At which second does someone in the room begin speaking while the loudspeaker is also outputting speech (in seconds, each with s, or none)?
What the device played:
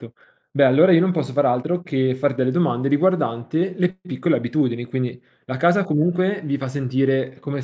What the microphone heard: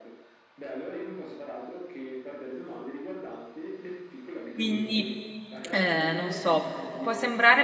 4.5 s